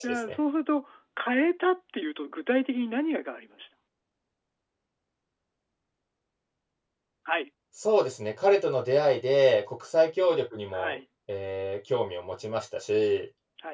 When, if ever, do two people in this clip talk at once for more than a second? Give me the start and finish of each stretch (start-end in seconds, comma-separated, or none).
none